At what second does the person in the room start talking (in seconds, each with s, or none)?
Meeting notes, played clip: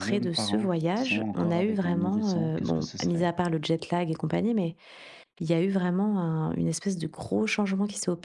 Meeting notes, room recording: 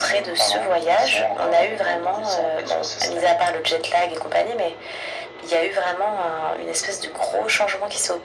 none